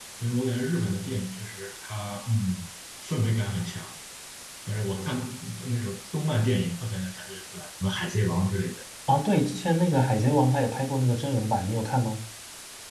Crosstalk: none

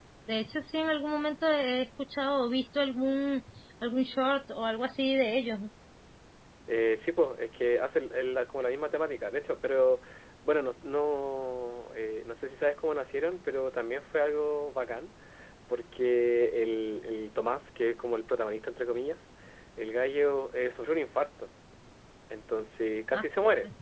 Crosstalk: none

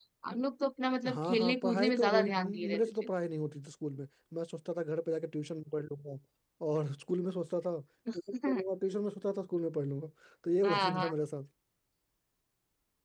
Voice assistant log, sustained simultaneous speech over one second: present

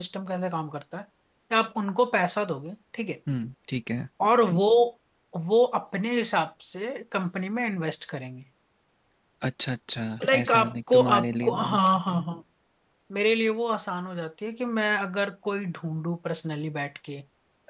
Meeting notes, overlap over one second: present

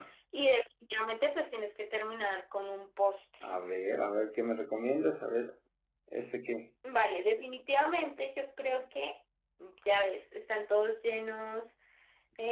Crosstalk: none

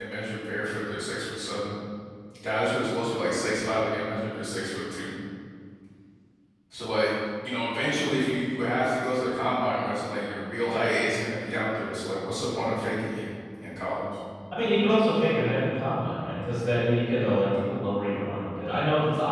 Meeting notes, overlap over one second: none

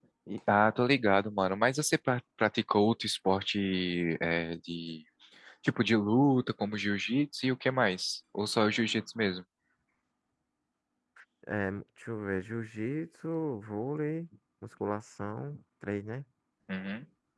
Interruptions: none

